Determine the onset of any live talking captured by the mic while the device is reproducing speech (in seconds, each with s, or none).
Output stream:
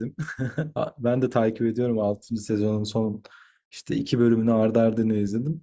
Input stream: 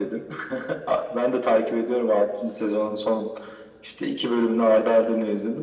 none